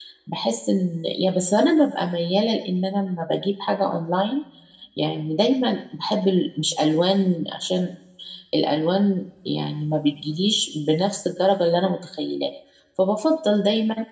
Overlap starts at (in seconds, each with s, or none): none